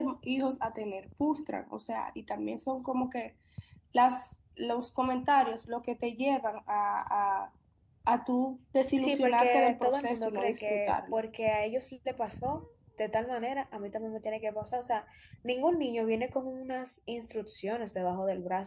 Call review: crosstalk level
present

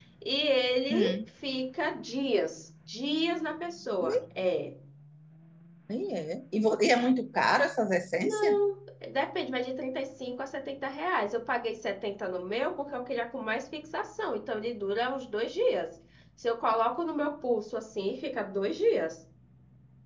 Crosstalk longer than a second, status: none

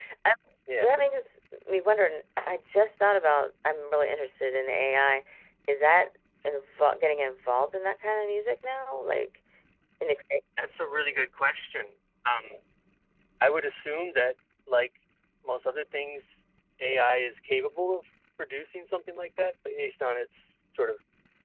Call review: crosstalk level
none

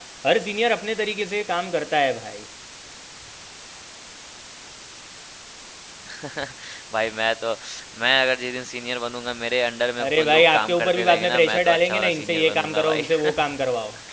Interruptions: present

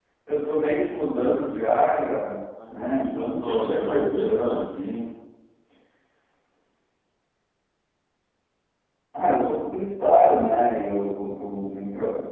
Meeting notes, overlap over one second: present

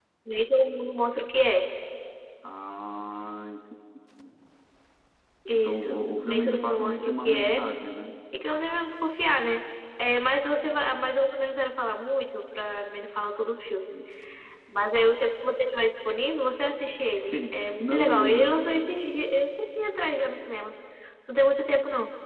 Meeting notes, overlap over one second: present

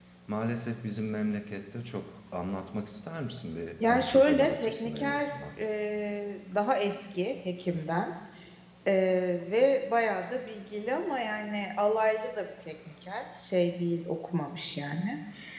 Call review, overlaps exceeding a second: present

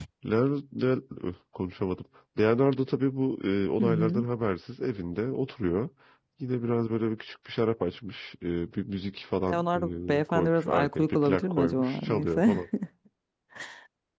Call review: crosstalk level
present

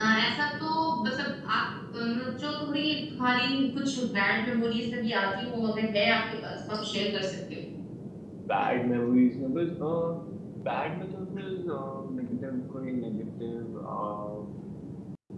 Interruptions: none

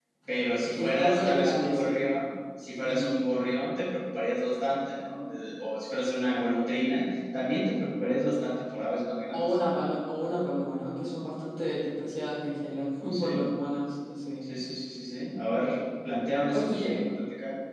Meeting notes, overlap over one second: present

